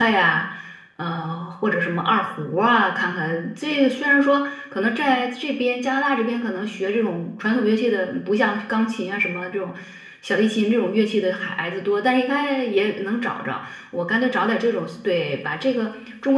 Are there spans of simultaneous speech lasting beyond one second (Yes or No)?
No